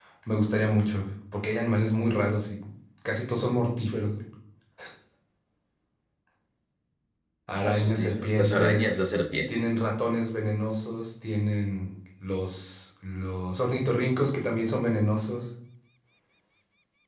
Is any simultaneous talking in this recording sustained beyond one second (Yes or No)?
Yes